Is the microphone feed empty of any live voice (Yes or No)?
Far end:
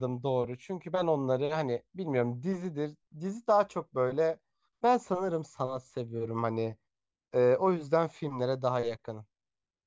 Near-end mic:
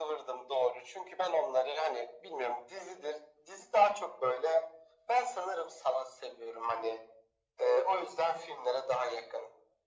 Yes